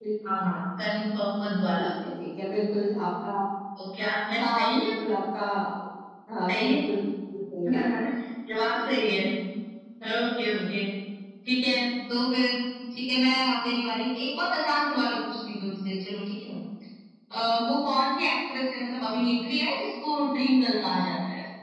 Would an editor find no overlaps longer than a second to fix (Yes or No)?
Yes